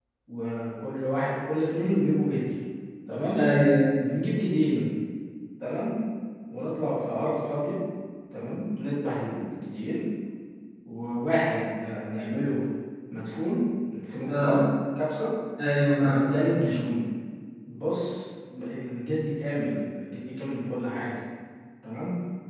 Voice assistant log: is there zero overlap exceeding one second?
Yes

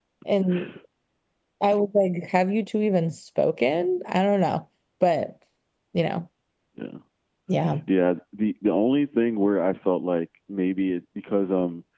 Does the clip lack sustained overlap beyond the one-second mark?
Yes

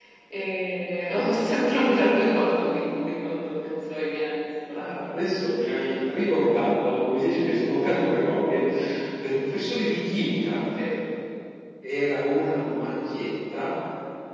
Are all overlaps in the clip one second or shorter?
Yes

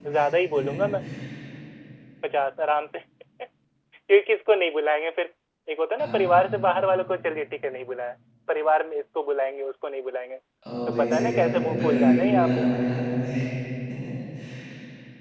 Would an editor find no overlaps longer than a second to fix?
No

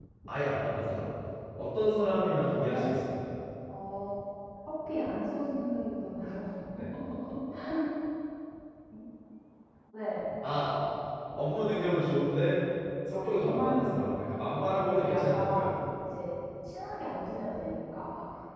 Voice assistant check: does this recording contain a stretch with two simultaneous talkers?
Yes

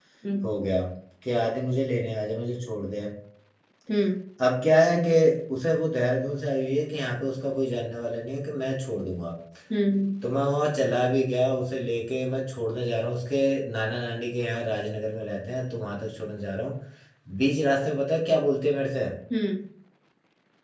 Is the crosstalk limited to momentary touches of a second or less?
Yes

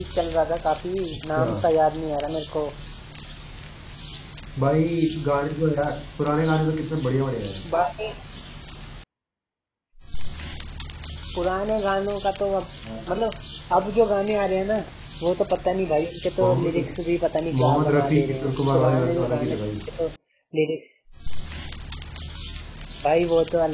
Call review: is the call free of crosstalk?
No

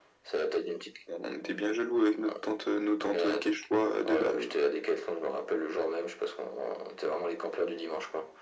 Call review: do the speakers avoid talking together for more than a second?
Yes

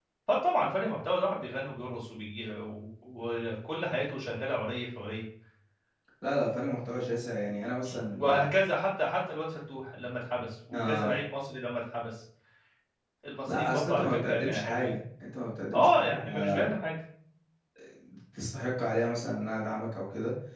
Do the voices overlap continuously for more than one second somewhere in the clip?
Yes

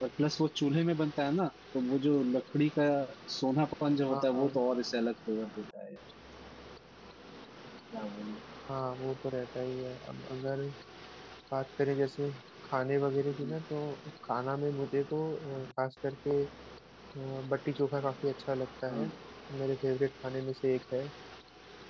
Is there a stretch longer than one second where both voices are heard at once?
No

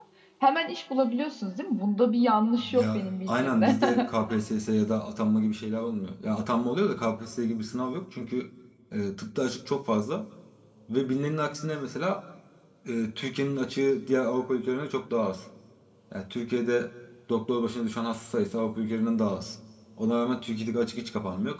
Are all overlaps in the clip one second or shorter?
No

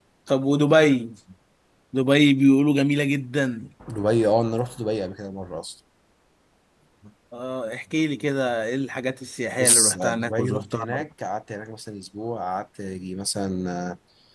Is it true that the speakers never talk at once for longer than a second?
No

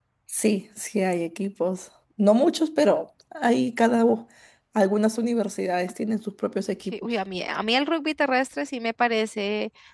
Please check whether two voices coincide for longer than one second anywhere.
No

